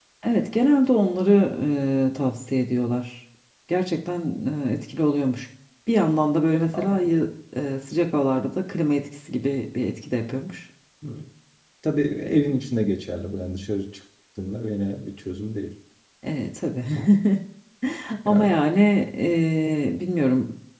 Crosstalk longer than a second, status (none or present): none